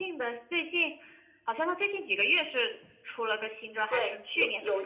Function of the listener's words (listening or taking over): taking over